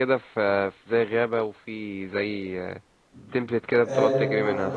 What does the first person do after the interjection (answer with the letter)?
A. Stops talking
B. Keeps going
A